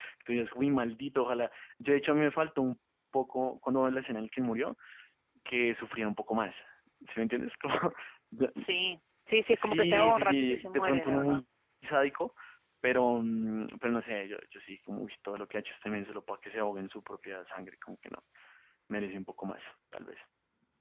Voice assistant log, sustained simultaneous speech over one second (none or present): present